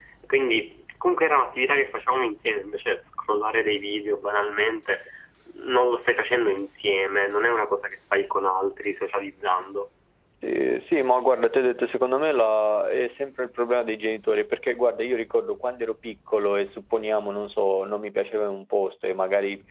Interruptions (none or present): none